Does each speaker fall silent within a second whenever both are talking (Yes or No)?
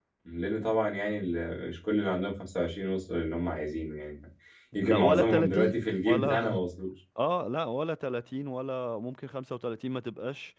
No